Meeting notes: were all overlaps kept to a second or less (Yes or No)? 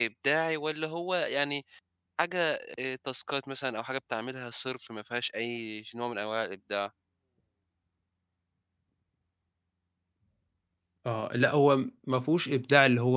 Yes